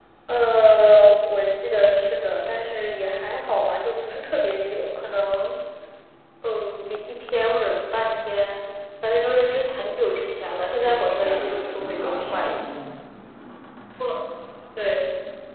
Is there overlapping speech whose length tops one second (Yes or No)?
Yes